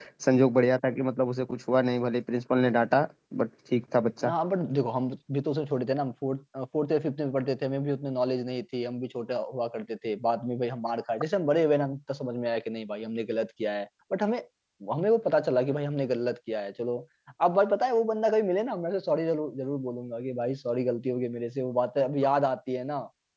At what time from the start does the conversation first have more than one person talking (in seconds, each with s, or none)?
none